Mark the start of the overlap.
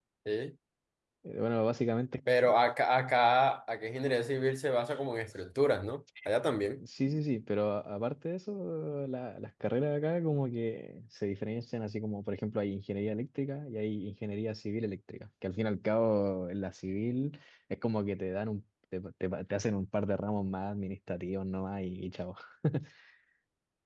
none

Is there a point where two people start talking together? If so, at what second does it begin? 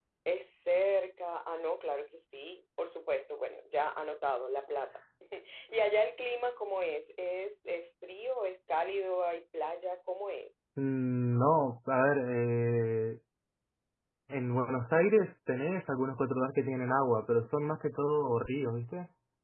none

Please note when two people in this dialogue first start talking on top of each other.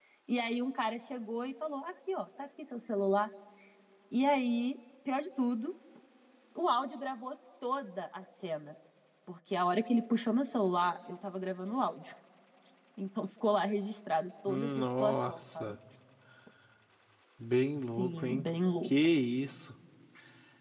14.5 s

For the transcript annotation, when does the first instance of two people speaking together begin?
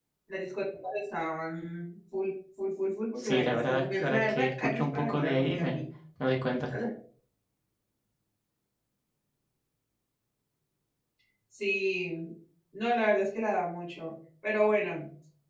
3.2 s

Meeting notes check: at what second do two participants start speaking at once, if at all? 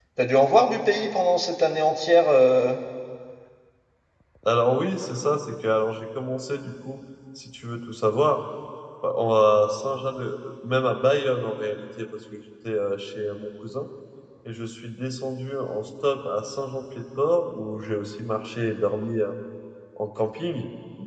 none

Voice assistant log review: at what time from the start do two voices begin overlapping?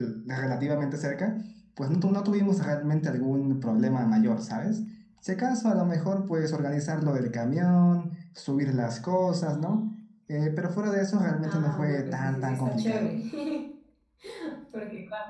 11.4 s

